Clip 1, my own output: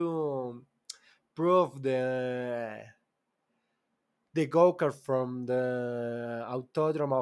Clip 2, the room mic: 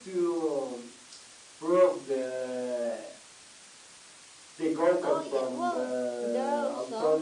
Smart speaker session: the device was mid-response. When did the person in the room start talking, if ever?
4.9 s

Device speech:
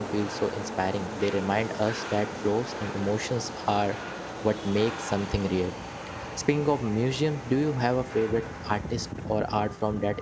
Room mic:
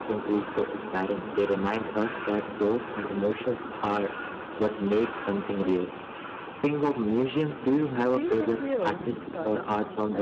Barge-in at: 8.1 s

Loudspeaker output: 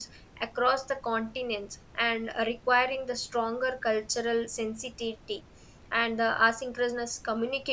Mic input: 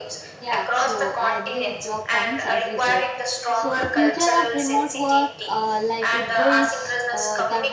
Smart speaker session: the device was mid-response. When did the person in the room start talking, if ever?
0.4 s

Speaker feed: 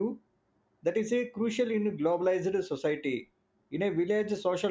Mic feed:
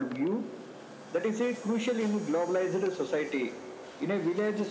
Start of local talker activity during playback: none

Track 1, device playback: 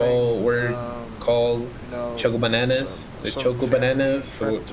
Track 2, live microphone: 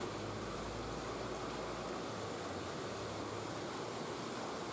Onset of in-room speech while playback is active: none

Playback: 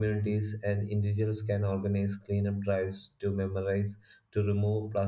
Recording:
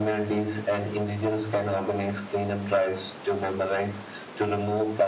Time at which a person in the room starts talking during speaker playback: none

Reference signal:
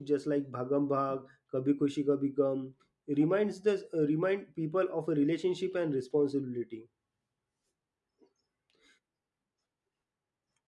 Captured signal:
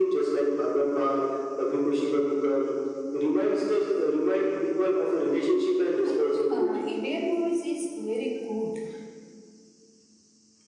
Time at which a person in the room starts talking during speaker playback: 6.0 s

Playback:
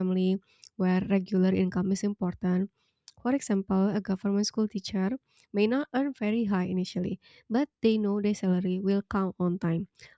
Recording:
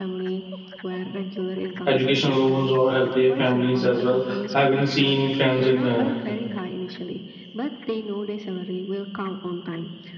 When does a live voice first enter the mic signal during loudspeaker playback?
1.8 s

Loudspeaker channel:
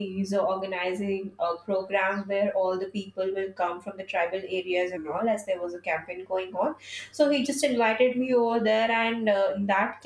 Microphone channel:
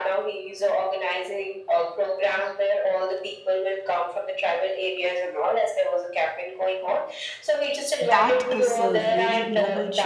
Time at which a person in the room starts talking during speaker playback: 8.0 s

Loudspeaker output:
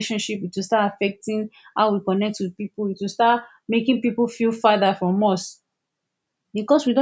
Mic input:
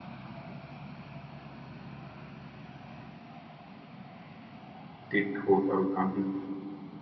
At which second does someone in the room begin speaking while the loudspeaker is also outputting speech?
5.1 s

